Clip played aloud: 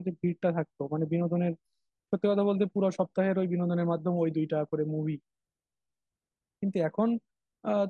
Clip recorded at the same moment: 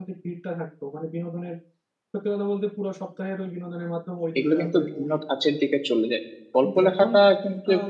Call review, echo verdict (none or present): present